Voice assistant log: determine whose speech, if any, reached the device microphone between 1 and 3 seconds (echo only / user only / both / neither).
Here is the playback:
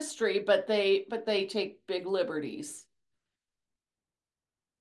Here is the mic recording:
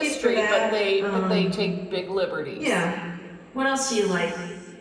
both